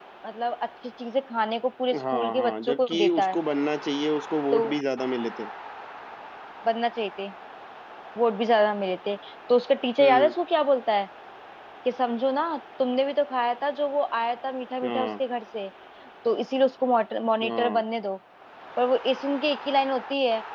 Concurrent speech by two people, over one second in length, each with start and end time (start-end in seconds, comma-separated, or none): 2.1-3.4